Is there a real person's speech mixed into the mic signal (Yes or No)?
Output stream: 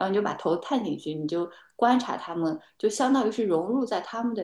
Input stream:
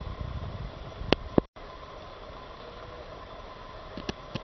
No